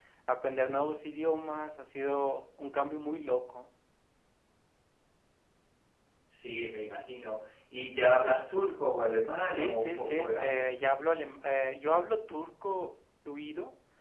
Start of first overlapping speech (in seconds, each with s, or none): 9.5 s